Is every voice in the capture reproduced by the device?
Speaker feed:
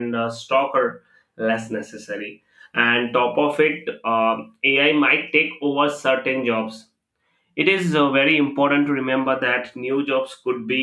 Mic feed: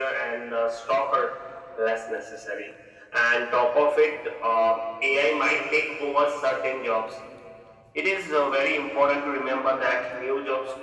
Yes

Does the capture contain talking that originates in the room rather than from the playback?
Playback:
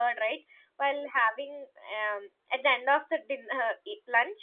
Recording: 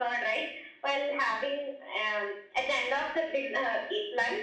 No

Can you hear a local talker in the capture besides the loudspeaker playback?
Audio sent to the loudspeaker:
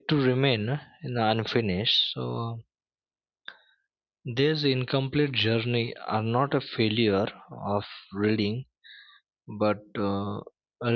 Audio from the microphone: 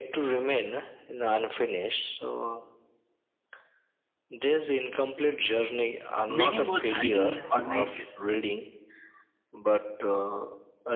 Yes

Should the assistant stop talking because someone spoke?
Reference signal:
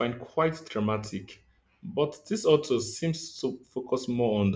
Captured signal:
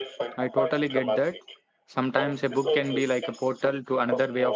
Yes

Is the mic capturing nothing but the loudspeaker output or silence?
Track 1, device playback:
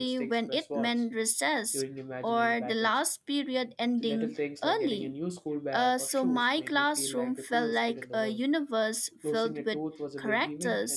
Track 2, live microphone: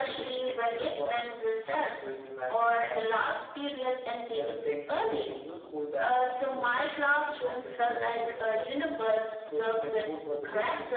Yes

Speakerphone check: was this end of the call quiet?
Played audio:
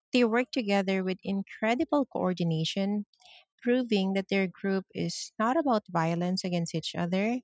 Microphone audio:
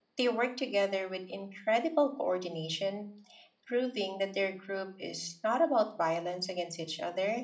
Yes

